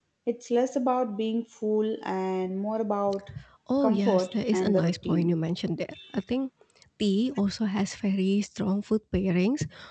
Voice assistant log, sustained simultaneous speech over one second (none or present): present